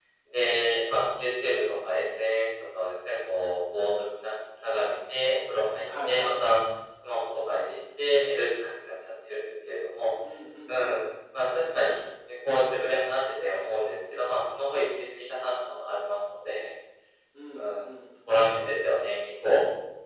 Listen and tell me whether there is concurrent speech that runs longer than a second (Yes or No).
No